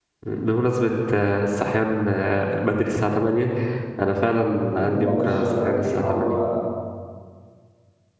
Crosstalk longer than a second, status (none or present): present